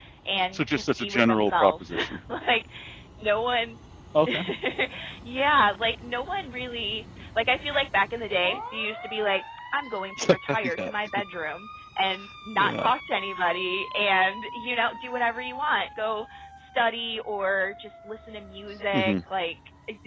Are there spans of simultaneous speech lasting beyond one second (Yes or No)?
Yes